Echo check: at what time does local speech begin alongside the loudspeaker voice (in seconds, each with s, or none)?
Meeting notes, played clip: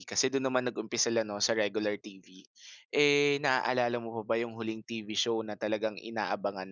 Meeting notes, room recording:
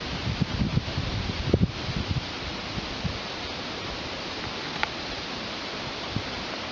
none